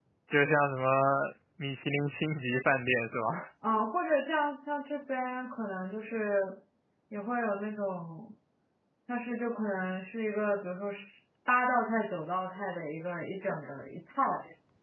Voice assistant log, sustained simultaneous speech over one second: none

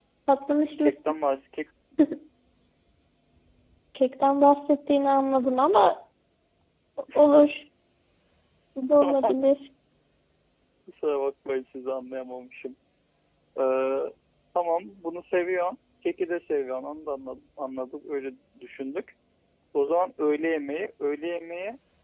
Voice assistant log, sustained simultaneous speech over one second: none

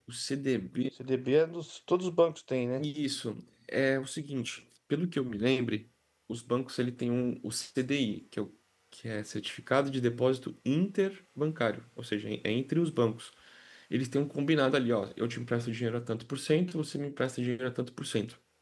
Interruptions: none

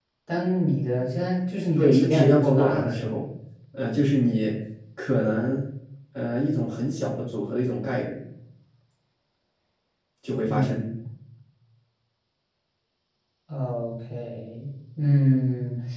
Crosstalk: present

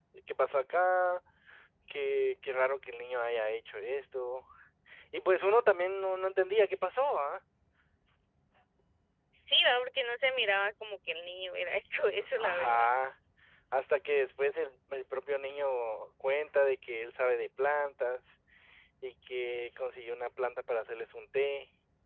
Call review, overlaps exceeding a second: none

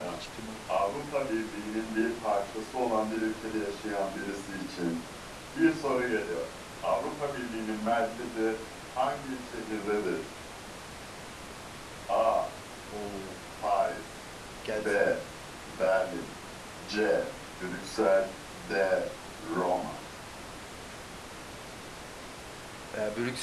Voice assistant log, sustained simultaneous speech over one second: none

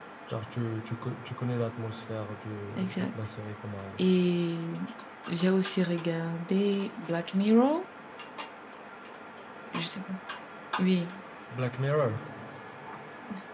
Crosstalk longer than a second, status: none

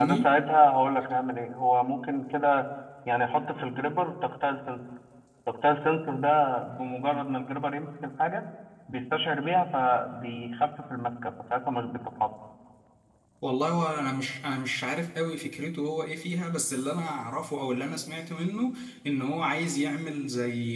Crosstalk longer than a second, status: none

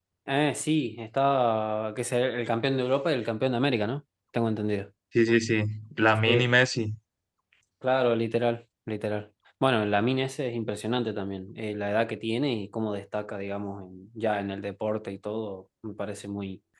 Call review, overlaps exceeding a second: none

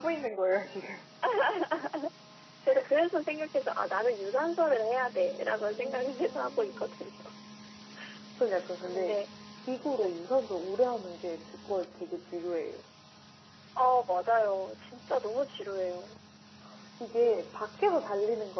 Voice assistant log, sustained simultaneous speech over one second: present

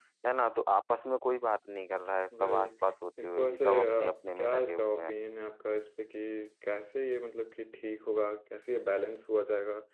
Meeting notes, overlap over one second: present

